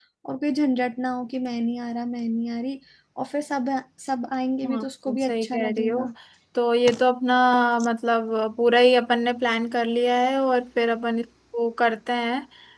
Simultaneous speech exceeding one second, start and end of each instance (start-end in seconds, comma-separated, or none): 4.6-6.1